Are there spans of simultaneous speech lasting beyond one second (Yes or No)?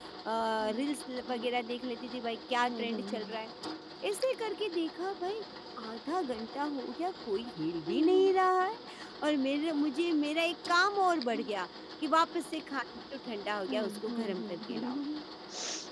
Yes